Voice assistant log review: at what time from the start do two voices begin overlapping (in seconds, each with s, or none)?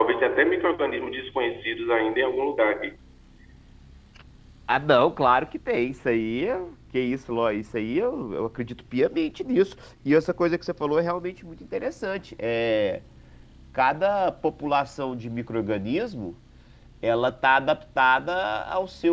none